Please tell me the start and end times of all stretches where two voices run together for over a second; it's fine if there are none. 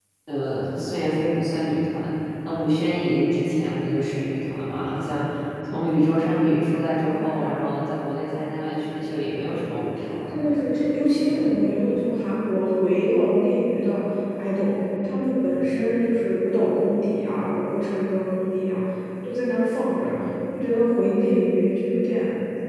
none

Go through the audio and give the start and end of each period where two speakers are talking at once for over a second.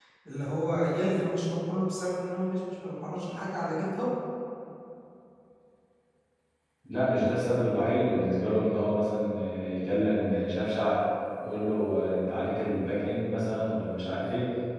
none

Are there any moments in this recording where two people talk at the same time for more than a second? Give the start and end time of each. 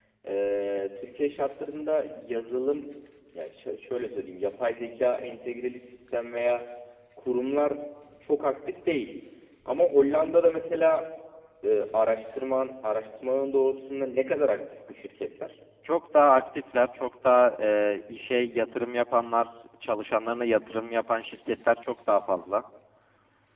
none

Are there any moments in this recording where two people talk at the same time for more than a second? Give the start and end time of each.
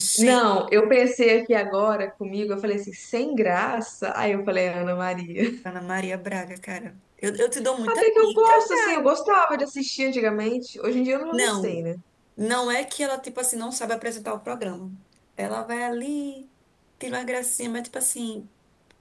7.9-9.1

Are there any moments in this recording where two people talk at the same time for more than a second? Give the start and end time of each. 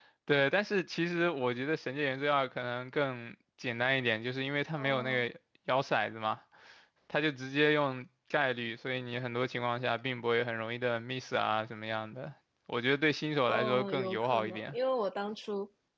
13.5-14.8

